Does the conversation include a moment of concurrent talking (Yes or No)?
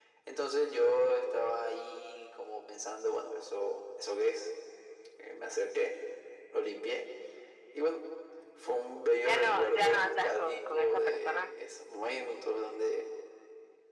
Yes